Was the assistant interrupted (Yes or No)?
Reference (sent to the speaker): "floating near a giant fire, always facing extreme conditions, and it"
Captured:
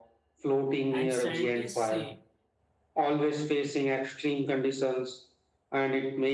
Yes